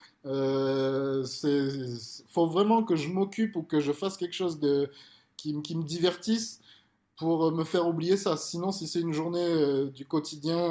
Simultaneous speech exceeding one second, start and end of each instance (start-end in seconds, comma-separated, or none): none